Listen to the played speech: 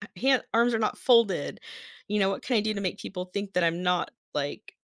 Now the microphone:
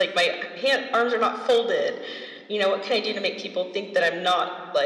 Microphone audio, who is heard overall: echo only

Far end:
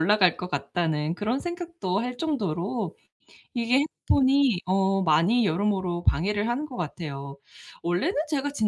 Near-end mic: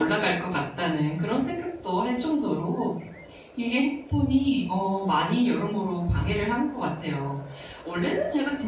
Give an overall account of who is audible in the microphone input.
echo only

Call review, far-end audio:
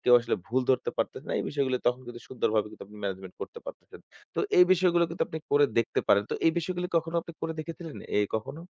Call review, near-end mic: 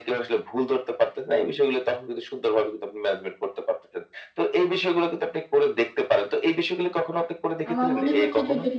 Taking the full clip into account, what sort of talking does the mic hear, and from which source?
both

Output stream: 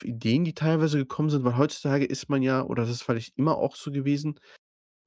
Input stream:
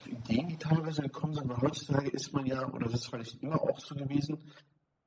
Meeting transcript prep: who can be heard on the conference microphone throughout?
echo only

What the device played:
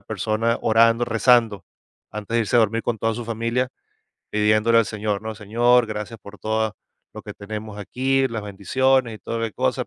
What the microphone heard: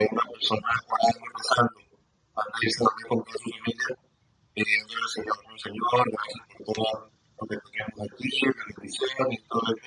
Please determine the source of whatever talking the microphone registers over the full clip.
echo only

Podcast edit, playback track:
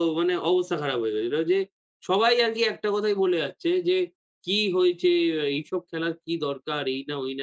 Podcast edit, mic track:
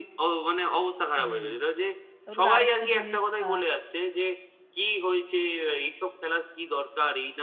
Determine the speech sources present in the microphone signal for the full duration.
both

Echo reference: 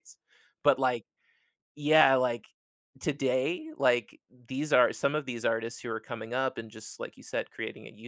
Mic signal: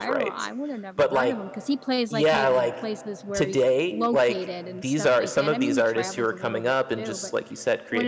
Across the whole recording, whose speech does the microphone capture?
both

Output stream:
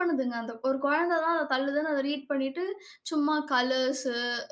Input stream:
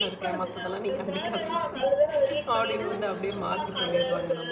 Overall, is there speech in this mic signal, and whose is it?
both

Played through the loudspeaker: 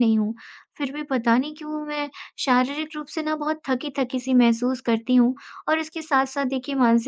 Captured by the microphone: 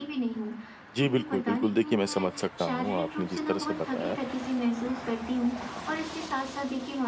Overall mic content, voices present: both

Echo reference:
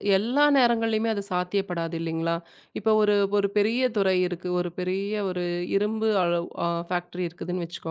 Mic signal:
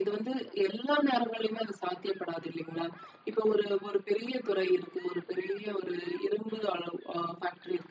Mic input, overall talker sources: echo only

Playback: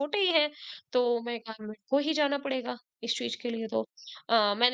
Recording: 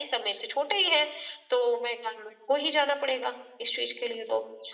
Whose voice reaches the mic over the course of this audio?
echo only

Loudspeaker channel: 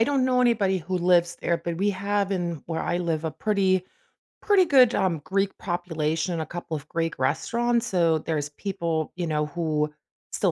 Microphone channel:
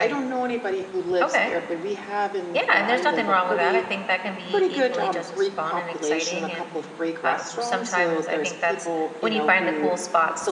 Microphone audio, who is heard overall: both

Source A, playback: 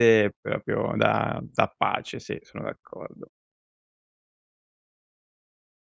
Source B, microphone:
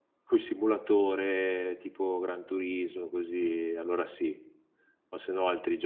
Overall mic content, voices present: user only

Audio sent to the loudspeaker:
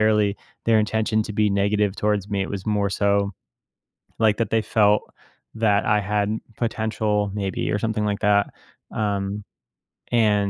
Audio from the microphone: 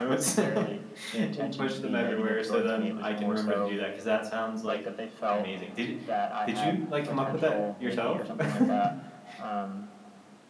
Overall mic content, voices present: both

